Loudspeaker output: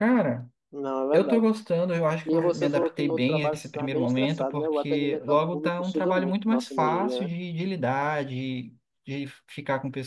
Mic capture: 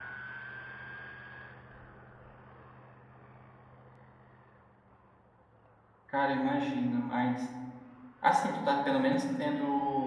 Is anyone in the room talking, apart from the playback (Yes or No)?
Yes